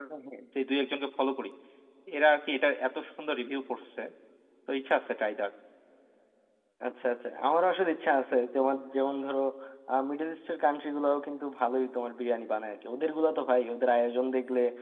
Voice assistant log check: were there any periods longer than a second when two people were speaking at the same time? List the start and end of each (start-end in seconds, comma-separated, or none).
none